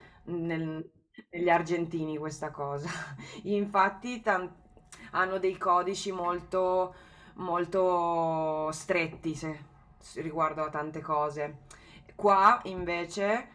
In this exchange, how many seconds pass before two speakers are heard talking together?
none

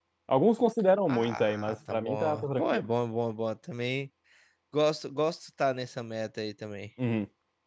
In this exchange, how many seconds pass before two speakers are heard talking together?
1 s

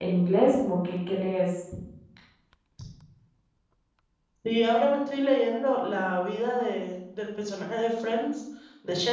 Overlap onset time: none

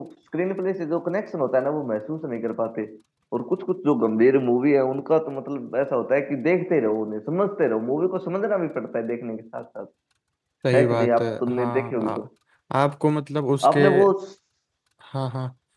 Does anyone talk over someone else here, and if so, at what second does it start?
11 s

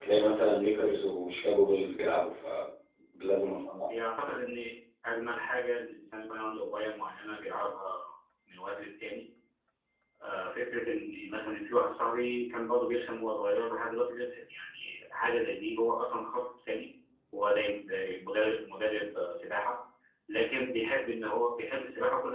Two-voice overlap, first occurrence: none

